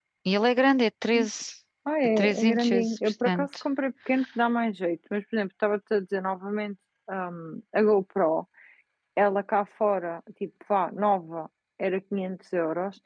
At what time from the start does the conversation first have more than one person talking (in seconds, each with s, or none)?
2.2 s